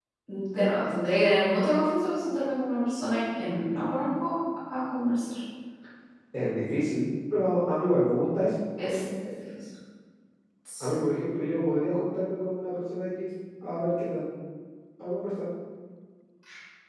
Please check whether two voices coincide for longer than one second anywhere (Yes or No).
No